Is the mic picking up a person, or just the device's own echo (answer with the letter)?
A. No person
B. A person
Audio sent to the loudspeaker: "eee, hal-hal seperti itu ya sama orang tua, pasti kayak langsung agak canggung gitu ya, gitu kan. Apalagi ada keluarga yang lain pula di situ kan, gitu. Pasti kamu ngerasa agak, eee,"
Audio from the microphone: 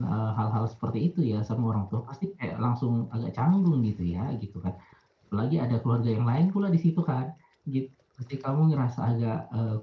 A